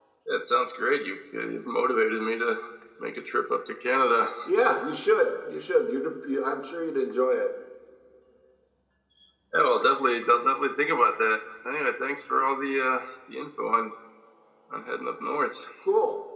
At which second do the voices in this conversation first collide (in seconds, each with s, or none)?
none